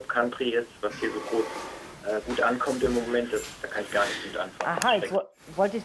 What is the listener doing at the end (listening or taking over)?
taking over